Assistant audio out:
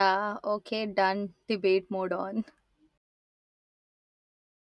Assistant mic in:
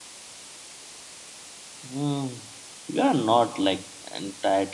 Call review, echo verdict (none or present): none